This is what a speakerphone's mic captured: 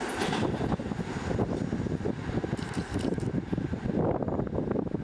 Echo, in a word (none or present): none